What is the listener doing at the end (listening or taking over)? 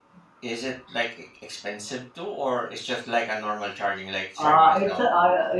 taking over